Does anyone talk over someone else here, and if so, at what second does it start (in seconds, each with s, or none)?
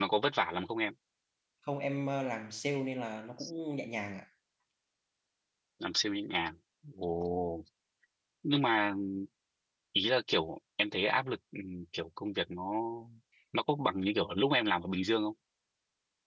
none